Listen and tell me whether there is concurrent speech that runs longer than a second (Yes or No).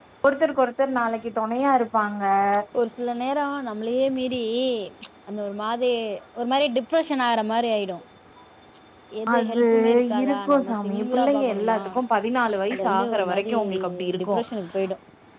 Yes